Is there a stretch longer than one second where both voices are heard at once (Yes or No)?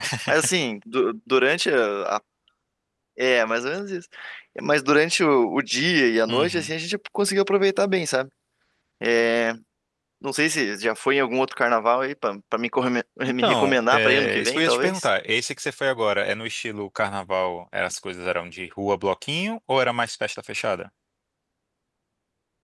Yes